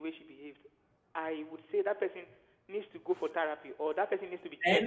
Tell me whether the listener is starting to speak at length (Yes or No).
Yes